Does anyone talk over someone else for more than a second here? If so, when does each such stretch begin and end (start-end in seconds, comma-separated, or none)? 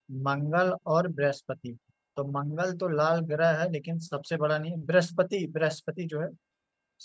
none